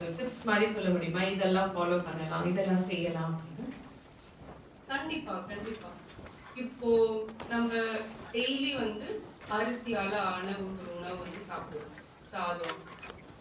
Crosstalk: none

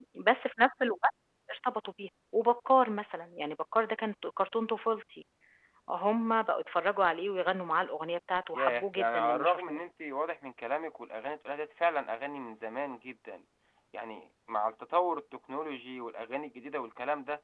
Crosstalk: present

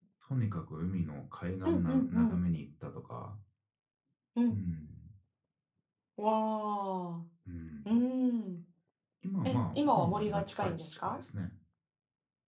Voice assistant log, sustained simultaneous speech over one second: present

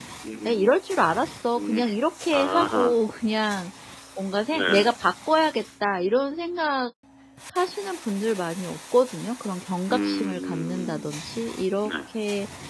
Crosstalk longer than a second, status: present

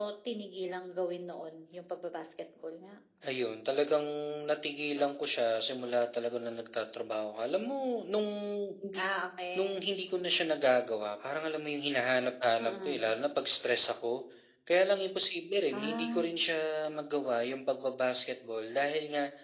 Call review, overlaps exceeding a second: none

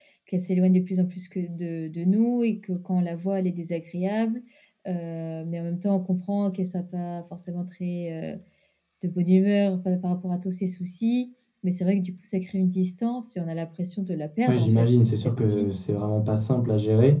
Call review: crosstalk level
present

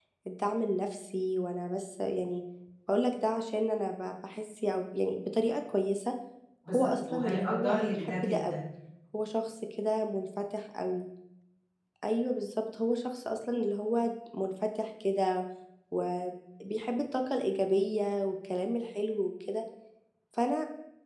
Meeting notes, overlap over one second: present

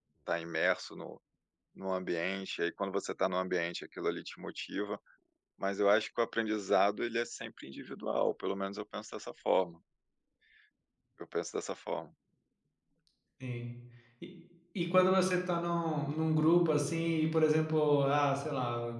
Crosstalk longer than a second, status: none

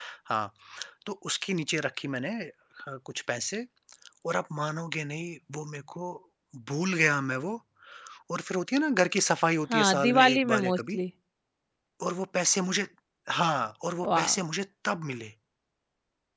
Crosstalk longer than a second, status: present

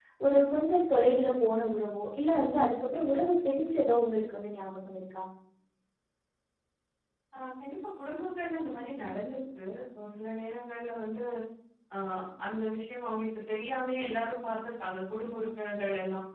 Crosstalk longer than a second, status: none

